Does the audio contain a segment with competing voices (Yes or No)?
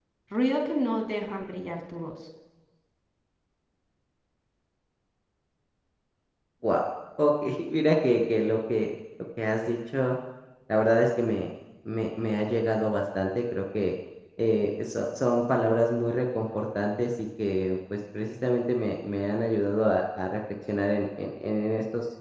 No